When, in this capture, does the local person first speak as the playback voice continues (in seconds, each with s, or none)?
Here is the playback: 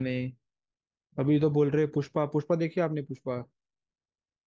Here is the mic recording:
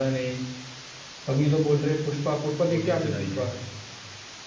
2.7 s